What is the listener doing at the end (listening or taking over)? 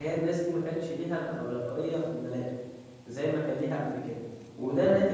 listening